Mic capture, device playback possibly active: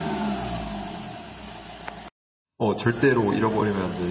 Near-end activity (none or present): present